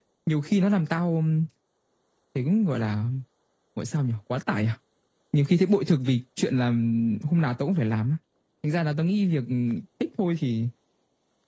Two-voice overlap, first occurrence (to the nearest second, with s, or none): none